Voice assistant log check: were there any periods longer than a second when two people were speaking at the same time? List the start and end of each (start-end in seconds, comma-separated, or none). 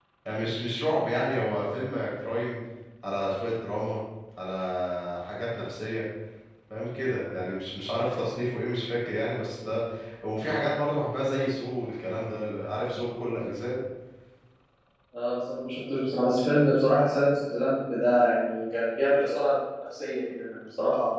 none